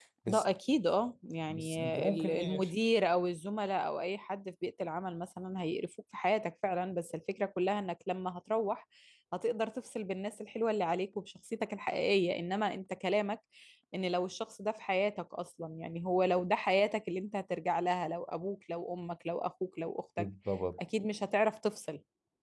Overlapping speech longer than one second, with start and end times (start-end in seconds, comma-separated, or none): 1.5-2.7